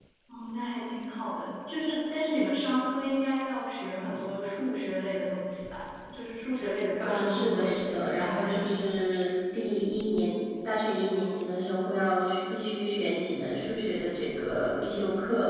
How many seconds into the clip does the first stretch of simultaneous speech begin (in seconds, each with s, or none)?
7.0 s